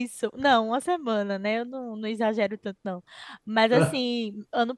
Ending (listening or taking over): listening